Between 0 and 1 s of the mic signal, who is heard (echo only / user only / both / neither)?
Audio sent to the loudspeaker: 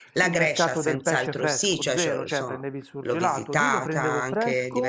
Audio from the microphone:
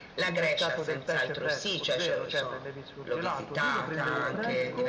echo only